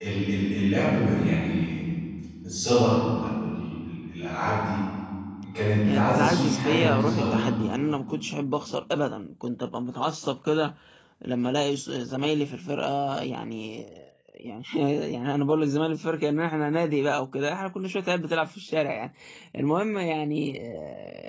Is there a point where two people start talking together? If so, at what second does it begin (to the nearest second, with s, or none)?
6 s